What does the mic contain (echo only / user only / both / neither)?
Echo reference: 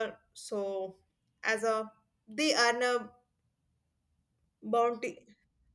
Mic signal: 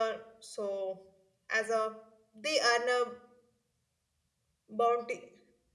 echo only